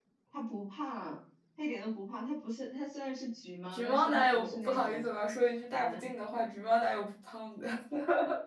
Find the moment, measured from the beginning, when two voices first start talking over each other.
3.7 s

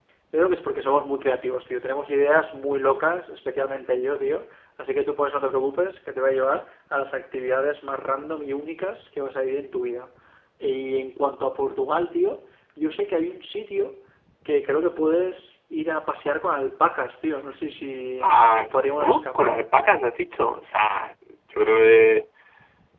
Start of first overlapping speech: 18.2 s

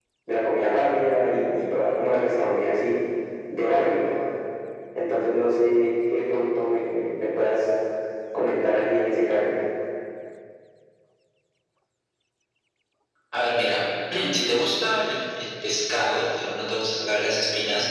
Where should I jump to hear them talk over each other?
none

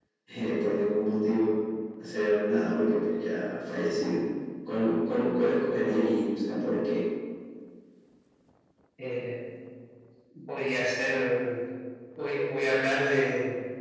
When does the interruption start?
none

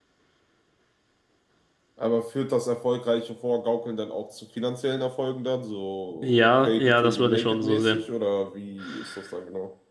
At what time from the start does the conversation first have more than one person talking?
6.2 s

